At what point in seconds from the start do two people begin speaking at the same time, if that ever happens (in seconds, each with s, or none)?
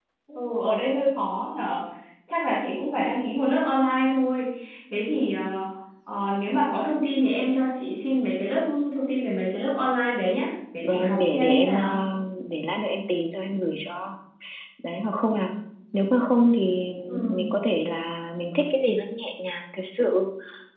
10.8 s